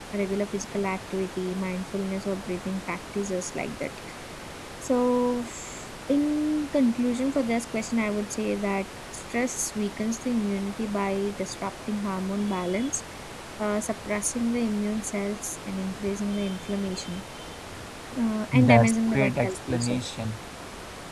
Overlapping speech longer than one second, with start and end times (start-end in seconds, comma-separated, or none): 18.6-20.0